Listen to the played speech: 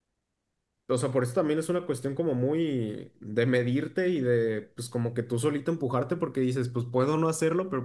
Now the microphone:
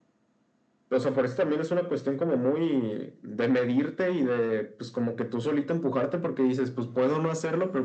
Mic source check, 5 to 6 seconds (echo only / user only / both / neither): echo only